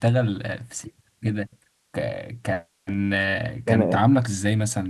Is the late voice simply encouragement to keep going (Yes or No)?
Yes